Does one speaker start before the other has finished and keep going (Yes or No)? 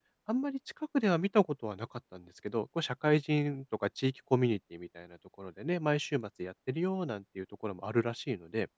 No